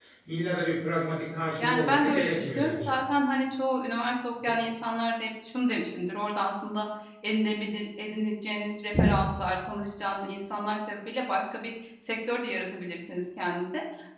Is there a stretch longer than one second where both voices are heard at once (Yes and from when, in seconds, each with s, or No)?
Yes, from 1.6 s